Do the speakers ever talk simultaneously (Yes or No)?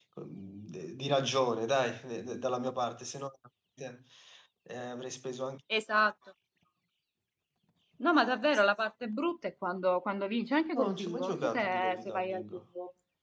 Yes